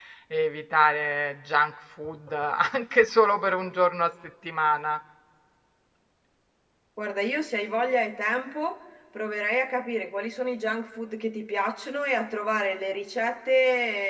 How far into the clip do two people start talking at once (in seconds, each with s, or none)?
none